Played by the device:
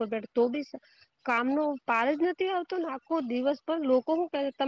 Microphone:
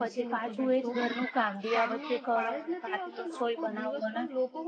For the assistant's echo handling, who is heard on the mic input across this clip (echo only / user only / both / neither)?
both